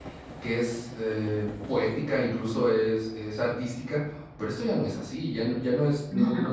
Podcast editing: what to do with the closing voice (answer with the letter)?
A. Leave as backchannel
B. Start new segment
A